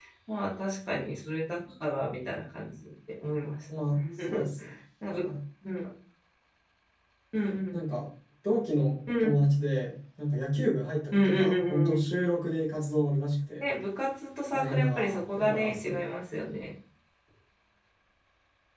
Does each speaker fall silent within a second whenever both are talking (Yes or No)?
No